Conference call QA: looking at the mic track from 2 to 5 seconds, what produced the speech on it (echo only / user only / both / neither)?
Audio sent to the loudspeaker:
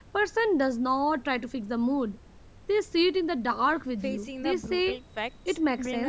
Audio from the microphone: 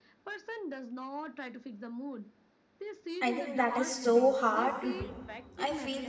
both